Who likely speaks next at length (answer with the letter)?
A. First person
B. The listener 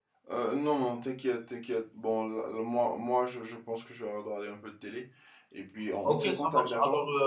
B